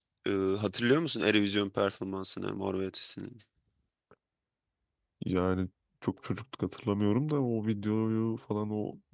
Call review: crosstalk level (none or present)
none